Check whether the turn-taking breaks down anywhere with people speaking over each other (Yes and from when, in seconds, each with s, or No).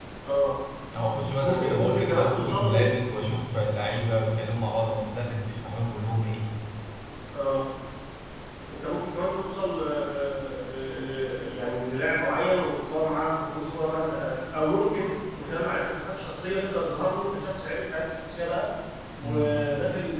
Yes, from 1.4 s